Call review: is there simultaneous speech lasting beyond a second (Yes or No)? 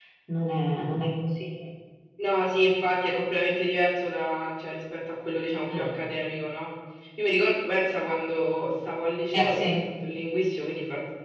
No